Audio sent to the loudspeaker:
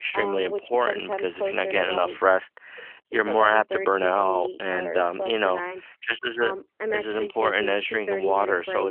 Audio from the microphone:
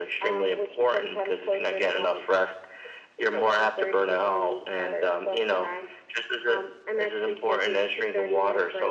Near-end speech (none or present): none